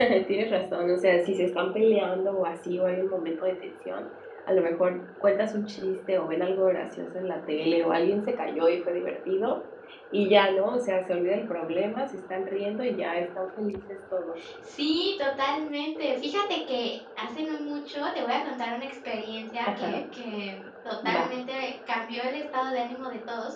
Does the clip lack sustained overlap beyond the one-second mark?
Yes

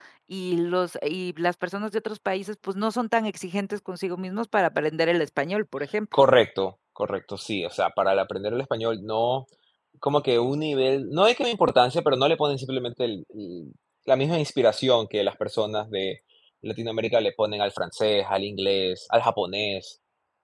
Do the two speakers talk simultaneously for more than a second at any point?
No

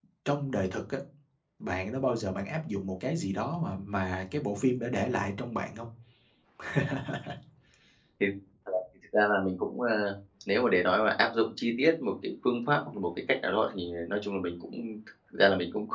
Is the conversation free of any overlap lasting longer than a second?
Yes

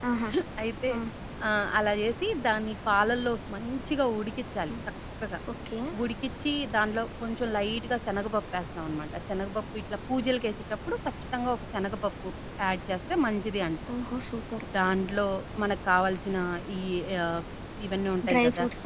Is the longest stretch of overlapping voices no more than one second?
Yes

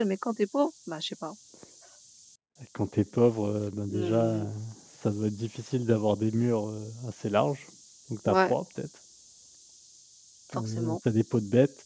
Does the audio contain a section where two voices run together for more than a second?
No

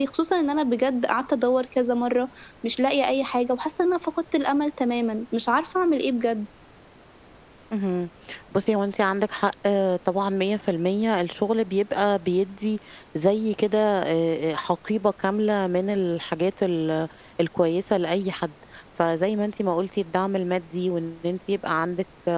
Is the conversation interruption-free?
Yes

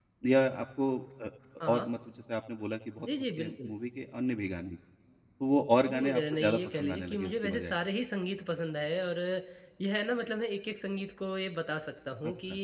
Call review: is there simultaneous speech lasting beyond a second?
Yes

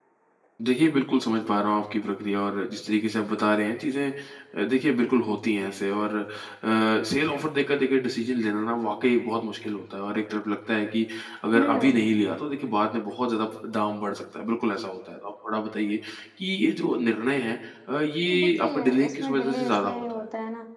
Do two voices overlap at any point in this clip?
Yes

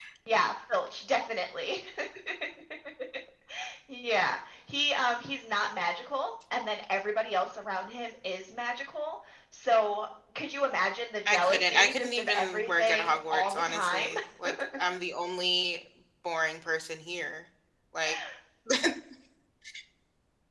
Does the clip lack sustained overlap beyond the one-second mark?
No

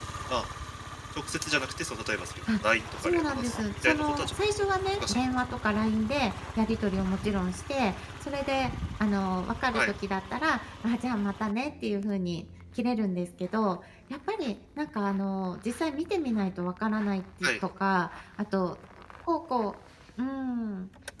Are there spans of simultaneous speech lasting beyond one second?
Yes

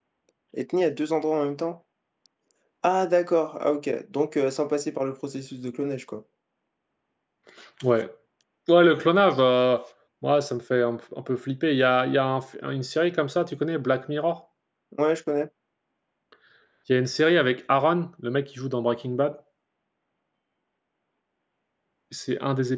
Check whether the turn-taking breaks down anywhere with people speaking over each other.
No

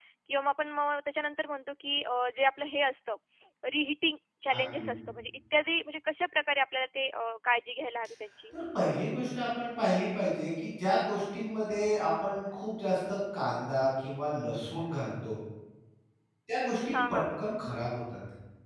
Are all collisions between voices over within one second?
Yes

